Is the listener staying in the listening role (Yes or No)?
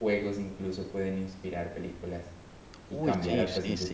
No